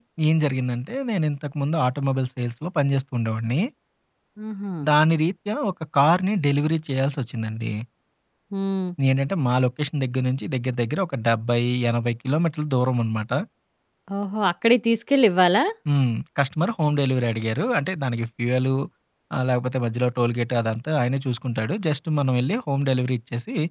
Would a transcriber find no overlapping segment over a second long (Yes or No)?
Yes